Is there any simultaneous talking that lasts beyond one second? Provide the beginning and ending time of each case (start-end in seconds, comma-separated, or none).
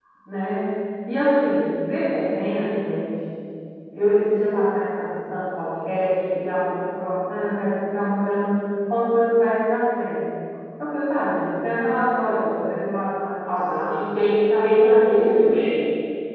13.9-15.5